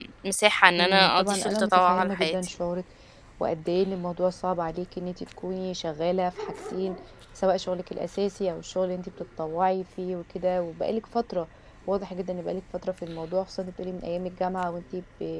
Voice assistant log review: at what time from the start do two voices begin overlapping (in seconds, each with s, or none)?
0.8 s